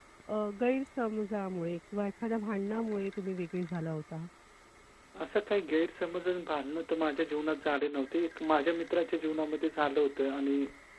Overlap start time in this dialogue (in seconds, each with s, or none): none